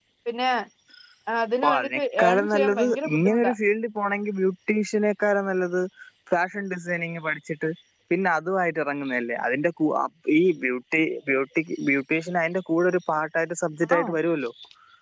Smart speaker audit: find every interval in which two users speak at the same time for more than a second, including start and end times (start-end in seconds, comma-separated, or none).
1.6-3.5